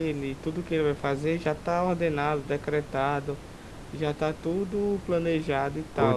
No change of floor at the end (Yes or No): Yes